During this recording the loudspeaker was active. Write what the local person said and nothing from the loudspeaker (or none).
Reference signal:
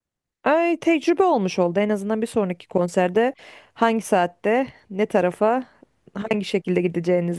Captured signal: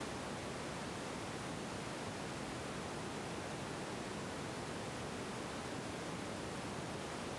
none